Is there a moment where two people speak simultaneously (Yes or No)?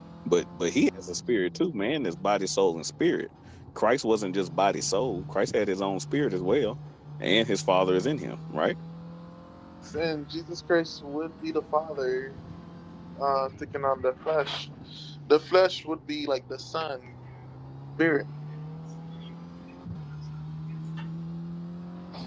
No